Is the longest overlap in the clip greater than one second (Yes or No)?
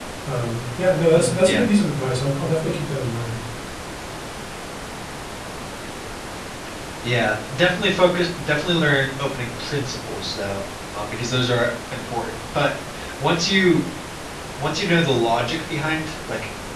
No